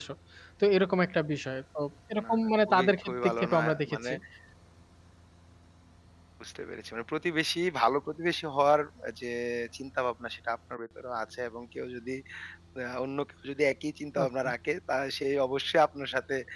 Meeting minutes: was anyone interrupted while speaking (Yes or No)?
Yes